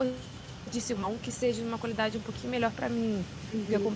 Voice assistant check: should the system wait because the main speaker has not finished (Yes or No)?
Yes